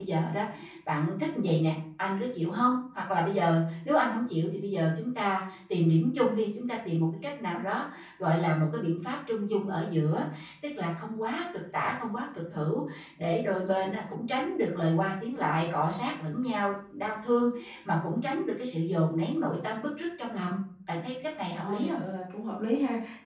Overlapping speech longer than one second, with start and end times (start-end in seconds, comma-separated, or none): none